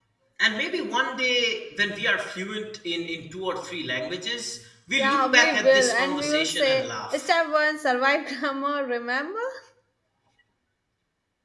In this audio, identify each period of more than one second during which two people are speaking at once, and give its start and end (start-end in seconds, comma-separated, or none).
4.9-7.3